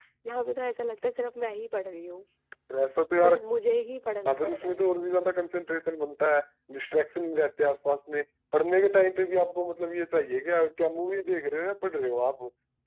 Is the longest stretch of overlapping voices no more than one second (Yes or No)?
Yes